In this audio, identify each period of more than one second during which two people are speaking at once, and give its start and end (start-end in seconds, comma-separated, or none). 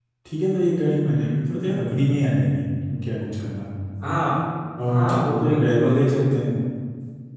4.9-6.2